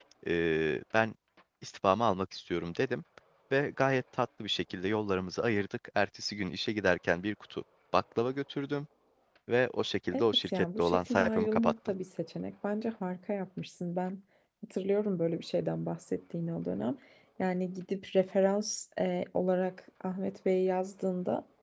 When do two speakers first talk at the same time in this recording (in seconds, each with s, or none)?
10.1 s